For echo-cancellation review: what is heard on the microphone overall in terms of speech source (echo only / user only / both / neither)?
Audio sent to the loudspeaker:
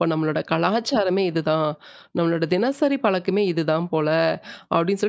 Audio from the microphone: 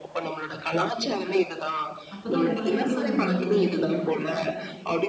both